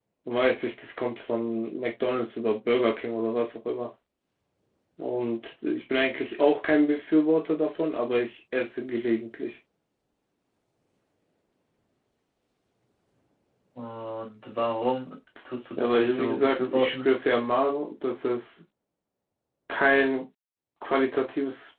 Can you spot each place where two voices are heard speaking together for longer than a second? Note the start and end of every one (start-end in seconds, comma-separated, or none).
15.8-17.1